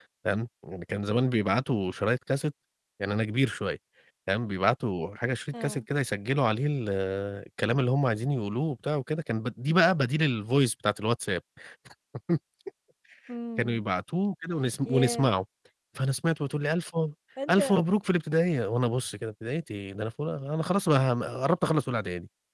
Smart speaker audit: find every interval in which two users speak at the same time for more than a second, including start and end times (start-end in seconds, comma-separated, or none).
none